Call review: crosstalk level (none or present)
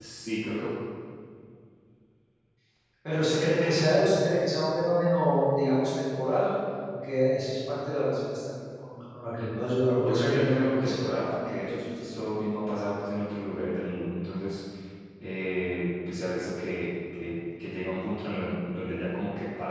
present